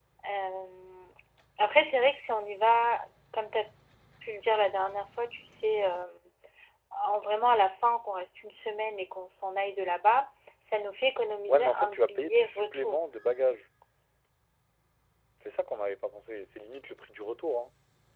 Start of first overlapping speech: 11 s

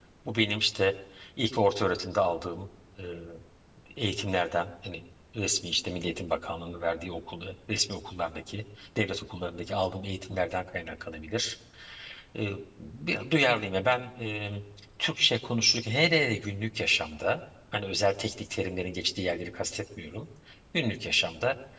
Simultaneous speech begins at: none

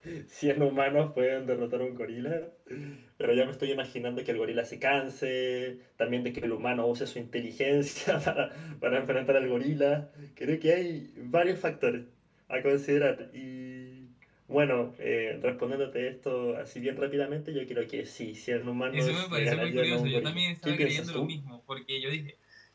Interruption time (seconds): 19 s

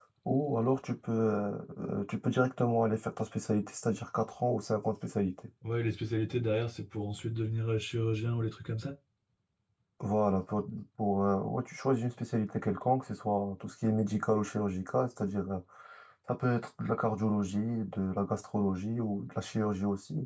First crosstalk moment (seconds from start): none

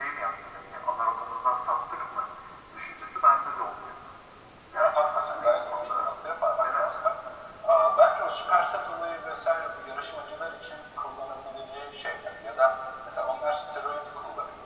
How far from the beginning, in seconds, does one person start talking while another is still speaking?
5 s

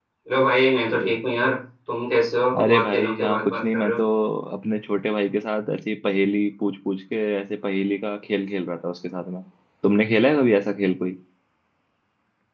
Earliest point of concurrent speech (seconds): 3 s

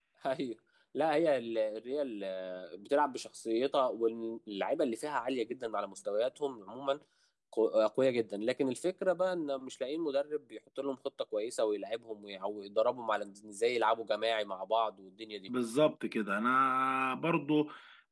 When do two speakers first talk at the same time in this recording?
none

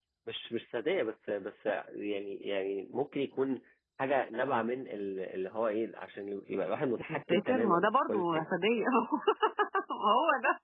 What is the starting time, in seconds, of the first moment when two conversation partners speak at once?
7 s

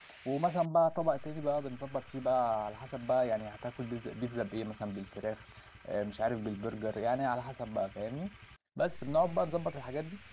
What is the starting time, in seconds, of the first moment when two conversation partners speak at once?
none

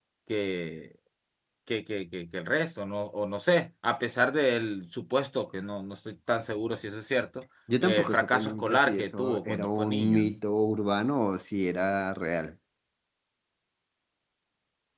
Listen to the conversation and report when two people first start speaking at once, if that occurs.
8 s

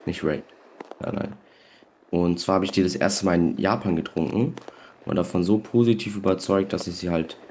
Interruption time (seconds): none

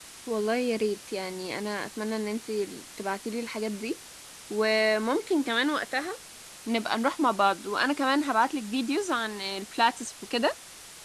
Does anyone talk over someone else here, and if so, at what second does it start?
none

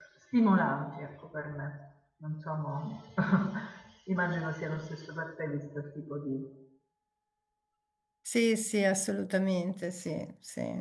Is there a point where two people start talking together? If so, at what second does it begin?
none

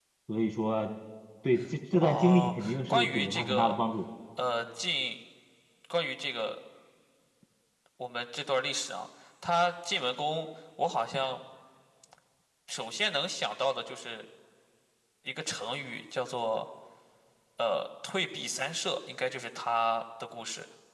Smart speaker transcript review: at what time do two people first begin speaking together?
2 s

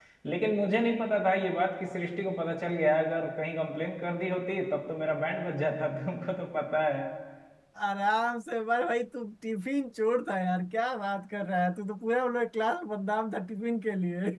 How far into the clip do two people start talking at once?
none

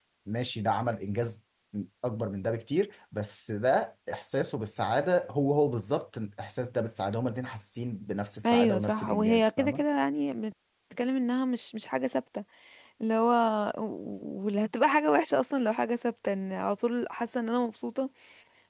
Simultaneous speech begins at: 8 s

